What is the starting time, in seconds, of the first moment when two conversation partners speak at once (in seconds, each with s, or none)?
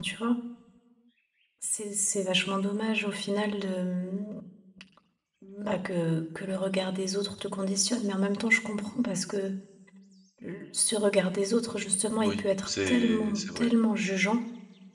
12.2 s